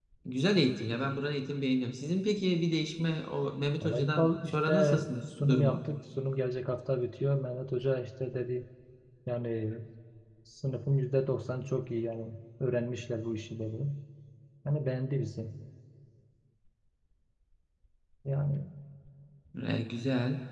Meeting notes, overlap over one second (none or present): present